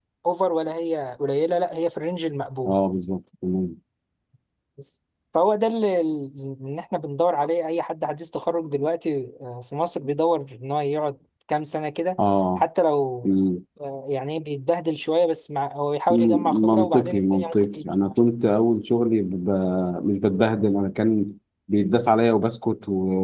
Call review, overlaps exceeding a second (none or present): present